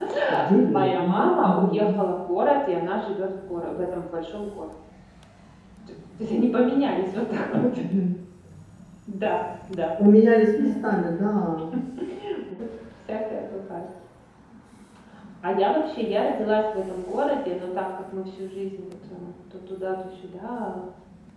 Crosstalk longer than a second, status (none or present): present